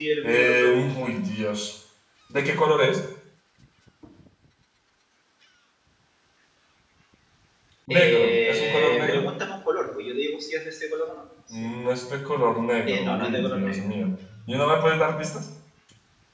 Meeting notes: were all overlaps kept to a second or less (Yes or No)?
No